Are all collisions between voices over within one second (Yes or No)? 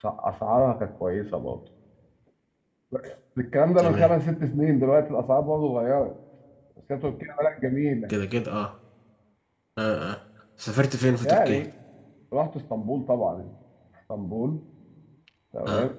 Yes